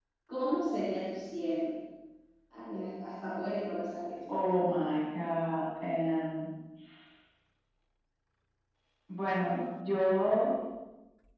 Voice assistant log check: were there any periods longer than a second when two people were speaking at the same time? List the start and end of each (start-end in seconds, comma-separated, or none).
none